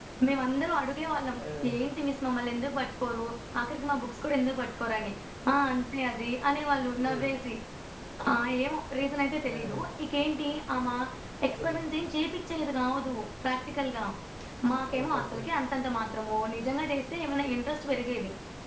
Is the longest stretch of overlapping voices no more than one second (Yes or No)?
Yes